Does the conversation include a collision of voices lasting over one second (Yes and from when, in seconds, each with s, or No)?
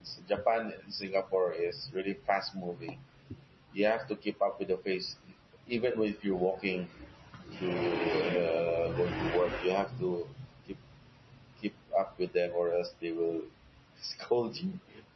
No